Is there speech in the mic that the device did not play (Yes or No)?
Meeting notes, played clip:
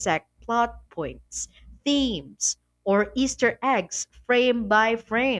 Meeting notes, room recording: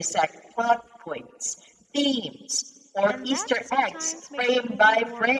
Yes